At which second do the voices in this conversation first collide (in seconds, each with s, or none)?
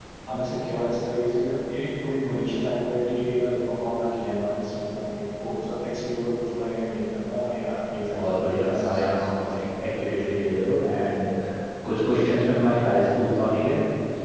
7.9 s